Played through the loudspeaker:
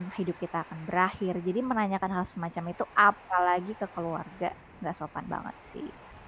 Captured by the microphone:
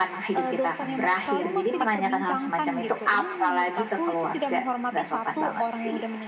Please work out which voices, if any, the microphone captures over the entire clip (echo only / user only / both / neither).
both